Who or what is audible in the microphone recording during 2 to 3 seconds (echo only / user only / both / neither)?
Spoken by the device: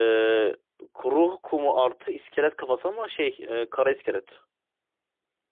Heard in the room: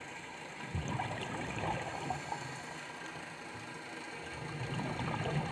neither